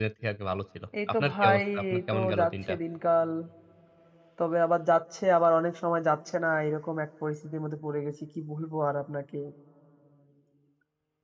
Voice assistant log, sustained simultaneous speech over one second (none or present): present